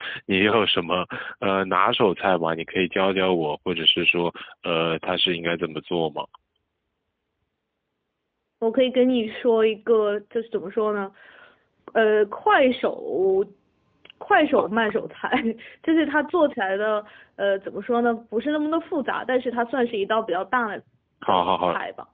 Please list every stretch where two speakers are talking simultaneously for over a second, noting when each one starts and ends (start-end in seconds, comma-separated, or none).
none